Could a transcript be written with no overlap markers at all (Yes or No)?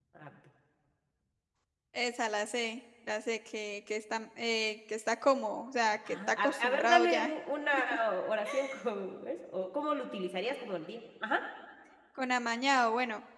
No